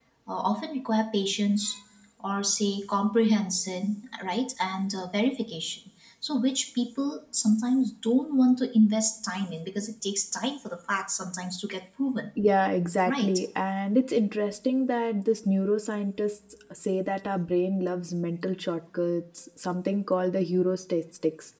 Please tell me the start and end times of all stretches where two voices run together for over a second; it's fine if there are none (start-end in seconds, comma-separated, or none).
none